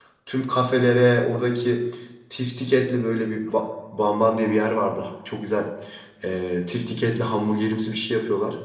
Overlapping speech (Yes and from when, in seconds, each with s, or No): No